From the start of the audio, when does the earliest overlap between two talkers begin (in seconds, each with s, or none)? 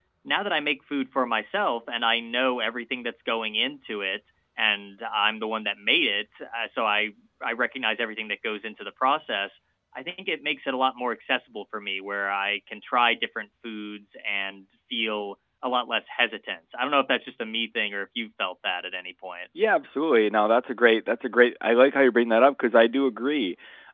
none